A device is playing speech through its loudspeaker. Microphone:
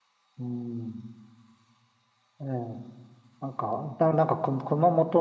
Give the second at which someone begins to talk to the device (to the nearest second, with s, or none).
none